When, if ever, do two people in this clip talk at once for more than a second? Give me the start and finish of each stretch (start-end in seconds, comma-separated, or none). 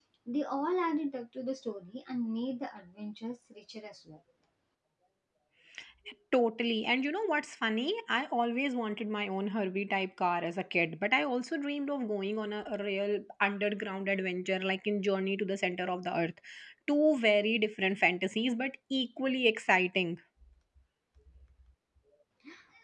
none